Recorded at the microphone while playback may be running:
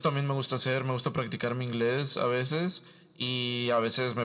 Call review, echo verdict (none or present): present